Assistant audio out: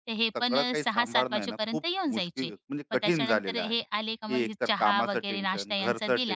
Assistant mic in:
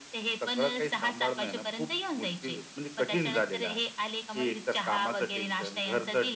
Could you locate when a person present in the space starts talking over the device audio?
none

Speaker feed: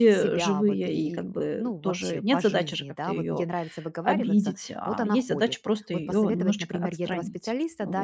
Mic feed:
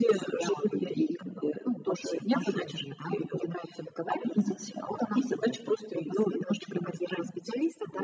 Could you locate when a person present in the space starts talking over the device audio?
none

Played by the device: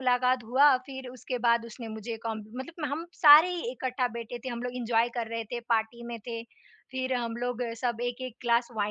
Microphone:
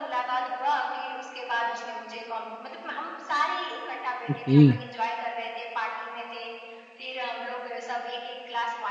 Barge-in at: 4.3 s

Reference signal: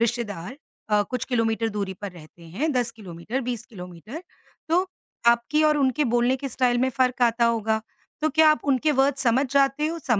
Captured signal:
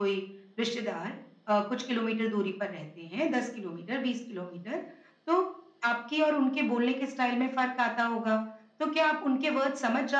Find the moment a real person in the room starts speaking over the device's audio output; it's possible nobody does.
none

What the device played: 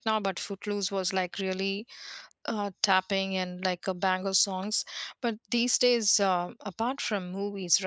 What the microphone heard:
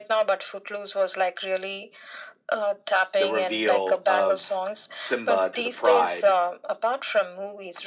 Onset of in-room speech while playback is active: 3.1 s

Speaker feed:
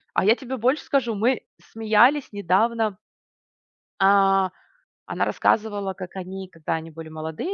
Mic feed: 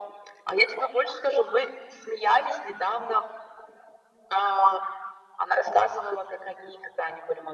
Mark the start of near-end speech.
none

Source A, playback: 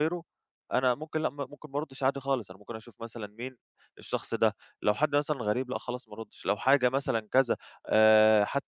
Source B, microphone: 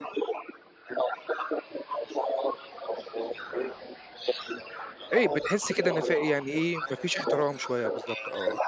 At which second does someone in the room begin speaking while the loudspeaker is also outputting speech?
5.1 s

